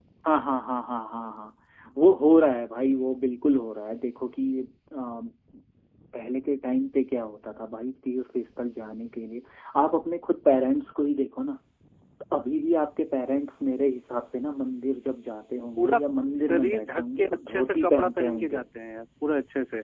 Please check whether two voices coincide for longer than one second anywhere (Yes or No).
Yes